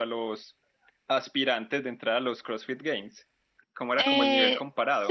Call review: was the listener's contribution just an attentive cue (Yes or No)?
No